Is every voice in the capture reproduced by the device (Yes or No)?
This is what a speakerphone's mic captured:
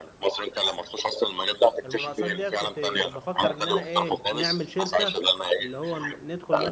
No